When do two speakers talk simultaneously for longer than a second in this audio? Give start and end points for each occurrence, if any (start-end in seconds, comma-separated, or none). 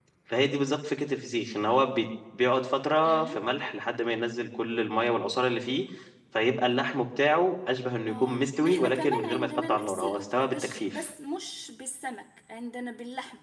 8.1-11.0